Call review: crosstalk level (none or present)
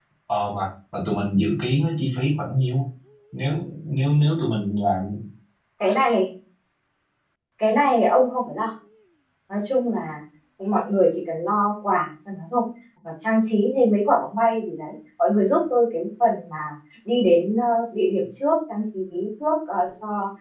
none